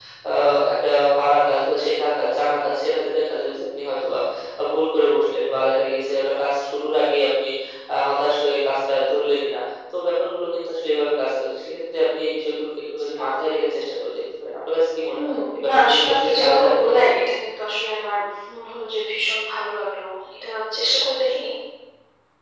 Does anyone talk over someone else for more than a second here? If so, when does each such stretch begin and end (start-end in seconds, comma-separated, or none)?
15.1-17.0